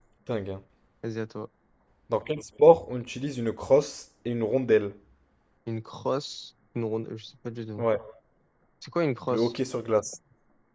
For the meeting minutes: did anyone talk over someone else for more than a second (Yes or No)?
No